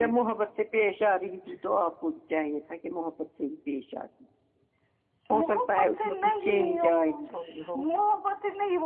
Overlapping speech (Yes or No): Yes